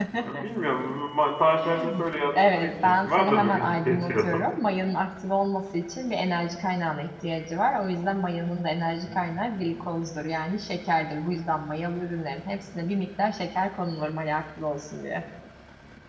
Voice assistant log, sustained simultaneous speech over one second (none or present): present